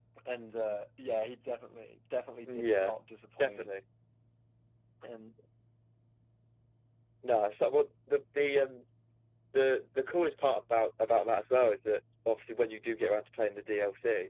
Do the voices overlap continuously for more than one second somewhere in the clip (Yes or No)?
No